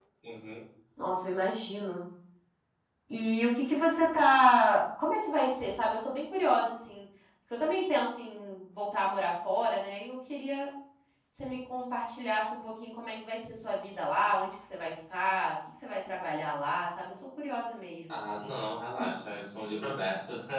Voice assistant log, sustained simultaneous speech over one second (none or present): none